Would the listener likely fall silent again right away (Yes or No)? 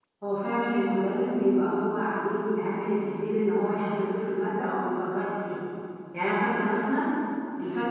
Yes